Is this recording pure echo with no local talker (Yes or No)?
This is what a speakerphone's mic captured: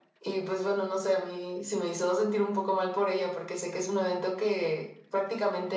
Yes